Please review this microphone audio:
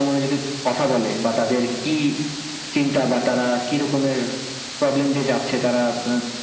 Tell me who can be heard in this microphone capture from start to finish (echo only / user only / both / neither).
echo only